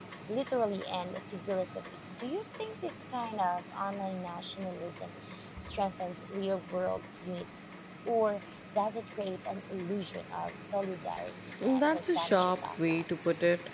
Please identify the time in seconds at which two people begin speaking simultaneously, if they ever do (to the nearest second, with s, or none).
12 s